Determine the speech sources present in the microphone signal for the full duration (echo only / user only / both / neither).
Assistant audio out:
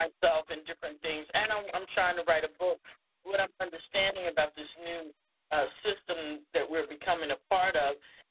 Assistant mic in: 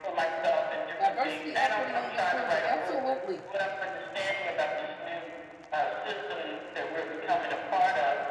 both